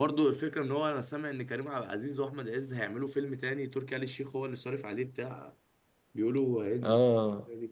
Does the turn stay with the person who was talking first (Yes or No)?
No